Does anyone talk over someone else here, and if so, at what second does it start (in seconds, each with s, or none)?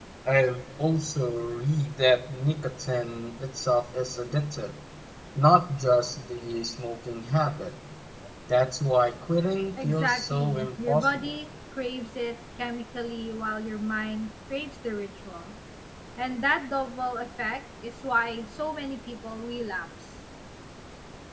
9.8 s